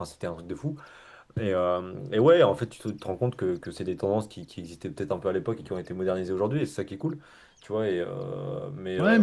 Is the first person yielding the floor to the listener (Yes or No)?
Yes